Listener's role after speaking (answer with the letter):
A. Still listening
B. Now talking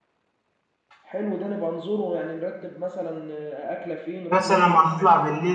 B